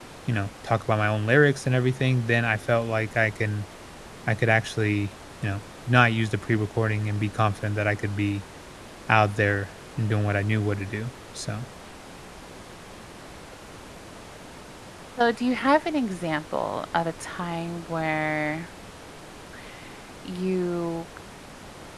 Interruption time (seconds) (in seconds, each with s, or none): none